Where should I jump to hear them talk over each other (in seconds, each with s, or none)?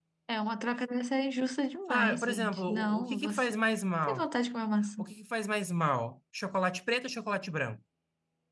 1.9 s